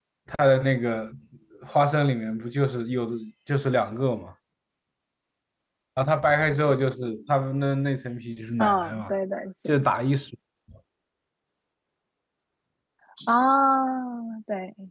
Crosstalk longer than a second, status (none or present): none